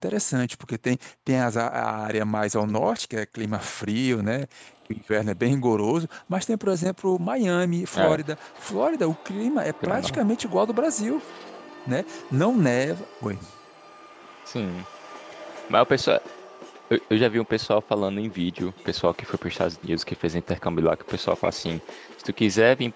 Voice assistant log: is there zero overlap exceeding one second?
Yes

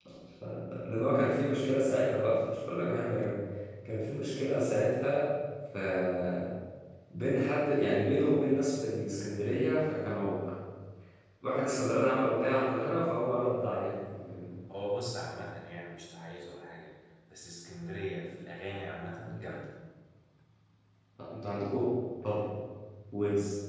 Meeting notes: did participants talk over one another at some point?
No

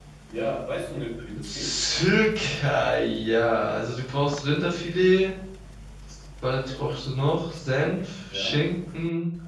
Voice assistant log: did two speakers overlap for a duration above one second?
No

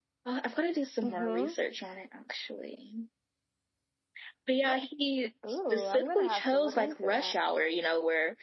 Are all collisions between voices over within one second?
No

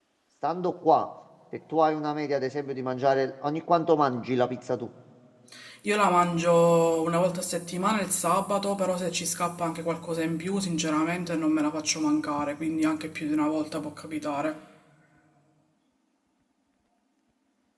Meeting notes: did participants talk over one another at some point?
No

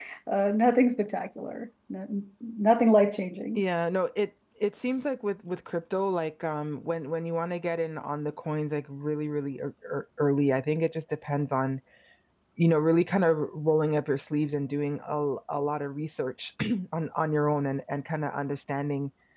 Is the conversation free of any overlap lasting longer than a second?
Yes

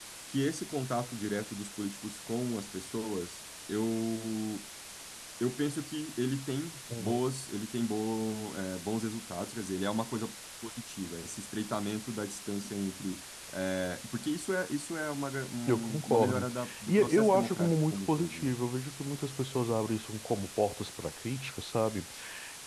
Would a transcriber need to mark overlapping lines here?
Yes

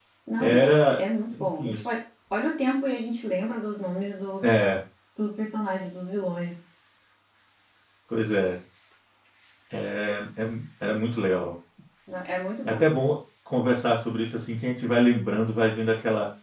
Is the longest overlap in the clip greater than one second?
Yes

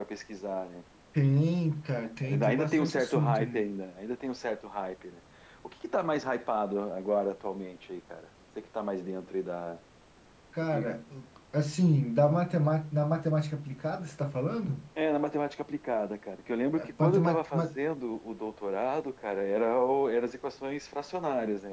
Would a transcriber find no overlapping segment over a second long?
No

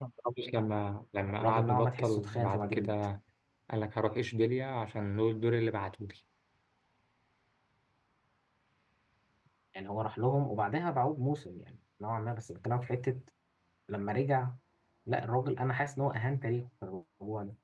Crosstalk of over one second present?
Yes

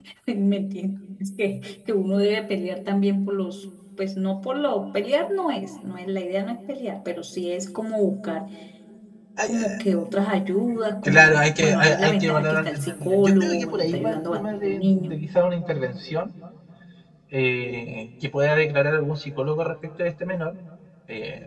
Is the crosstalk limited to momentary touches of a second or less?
No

